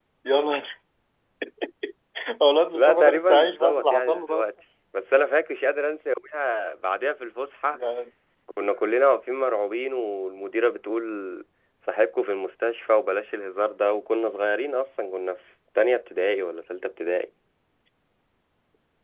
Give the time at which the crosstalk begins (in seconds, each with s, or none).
2.7 s